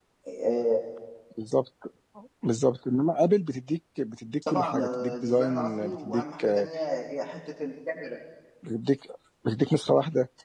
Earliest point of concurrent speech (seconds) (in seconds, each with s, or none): 4.4 s